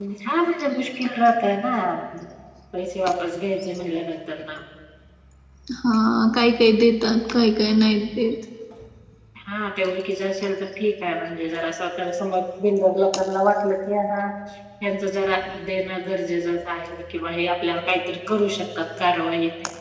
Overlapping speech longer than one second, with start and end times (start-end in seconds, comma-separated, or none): none